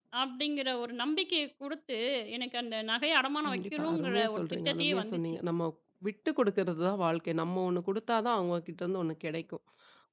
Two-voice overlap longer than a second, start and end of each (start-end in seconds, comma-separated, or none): 3.5-5.4